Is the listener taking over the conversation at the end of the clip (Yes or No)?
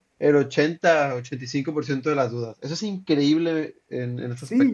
Yes